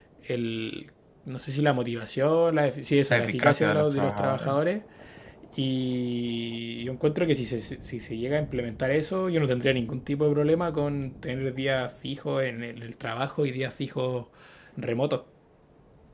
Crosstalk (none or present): present